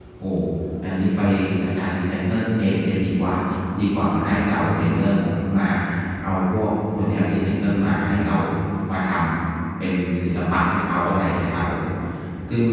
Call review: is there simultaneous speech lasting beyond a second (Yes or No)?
No